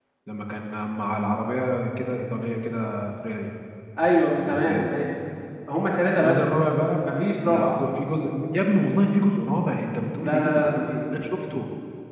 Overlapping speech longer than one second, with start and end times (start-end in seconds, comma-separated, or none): none